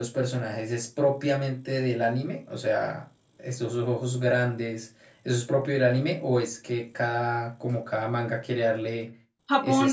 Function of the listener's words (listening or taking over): taking over